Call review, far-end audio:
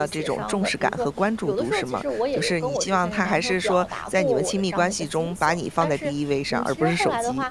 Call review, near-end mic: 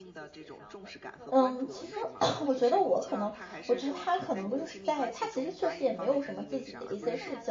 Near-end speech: present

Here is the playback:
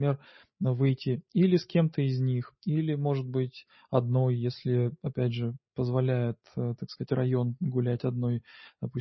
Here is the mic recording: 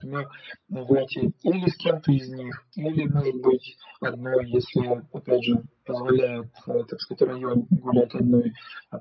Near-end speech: none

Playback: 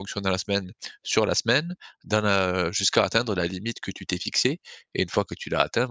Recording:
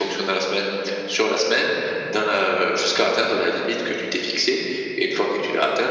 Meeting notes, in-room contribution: none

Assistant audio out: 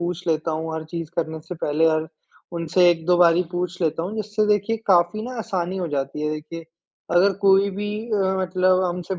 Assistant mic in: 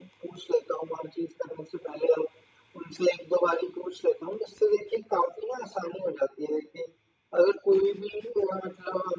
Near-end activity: none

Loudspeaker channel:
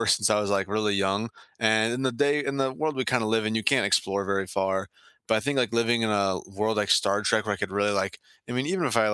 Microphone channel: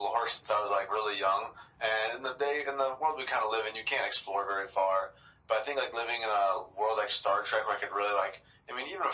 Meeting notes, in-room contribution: none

